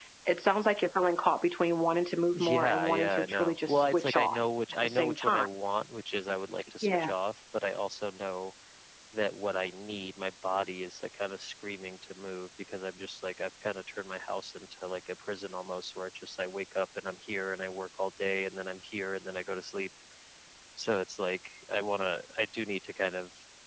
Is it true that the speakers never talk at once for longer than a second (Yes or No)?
No